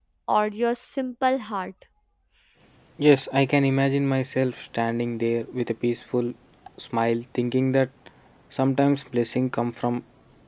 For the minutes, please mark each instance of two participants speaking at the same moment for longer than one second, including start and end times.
none

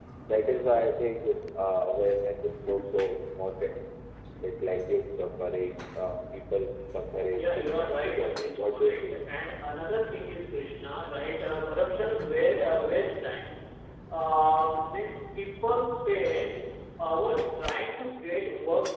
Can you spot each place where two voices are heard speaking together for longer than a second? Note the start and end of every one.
7.4-9.4

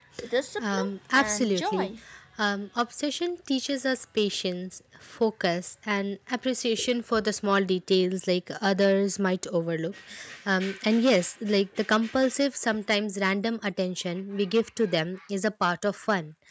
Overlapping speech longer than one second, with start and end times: 0.6-1.9

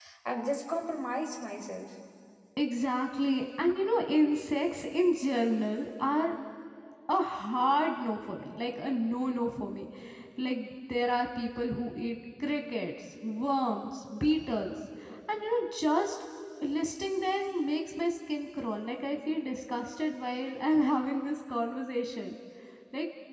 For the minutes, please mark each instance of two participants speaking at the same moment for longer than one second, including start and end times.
none

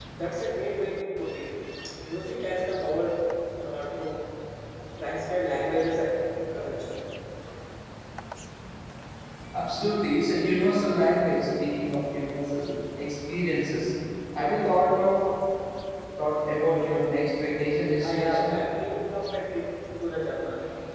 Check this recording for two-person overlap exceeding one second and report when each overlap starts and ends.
none

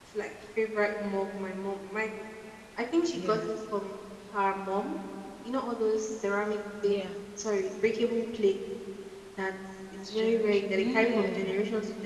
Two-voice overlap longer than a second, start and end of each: 10.0-11.5

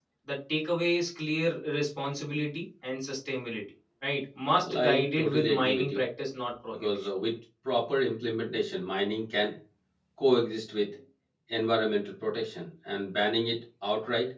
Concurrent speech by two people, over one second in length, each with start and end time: 4.5-6.0

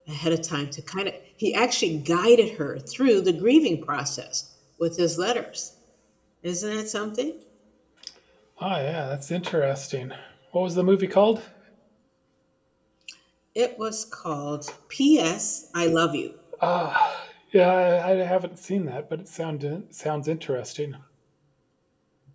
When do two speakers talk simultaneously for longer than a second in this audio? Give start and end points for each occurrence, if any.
none

